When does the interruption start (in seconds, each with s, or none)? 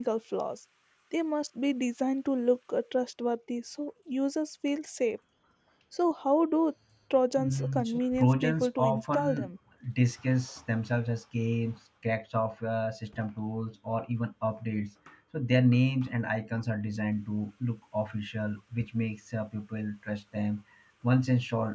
7.4 s